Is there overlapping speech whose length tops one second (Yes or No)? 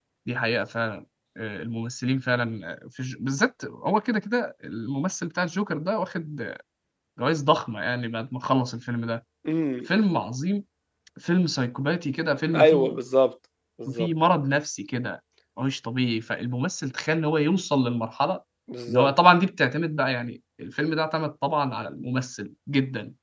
No